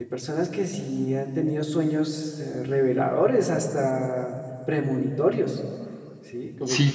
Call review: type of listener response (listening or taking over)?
taking over